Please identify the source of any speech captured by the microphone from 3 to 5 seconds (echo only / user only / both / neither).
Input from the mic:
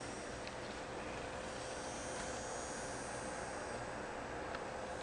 neither